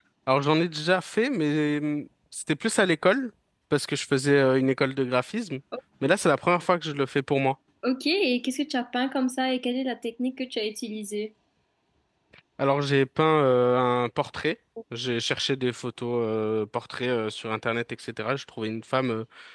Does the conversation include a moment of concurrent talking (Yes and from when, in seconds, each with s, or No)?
No